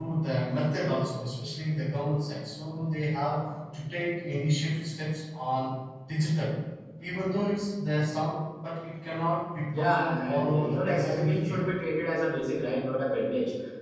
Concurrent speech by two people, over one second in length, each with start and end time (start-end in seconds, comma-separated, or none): 9.8-11.6